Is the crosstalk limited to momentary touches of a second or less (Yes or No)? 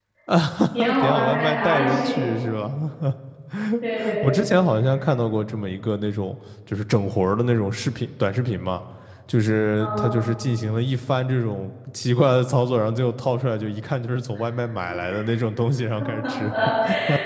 No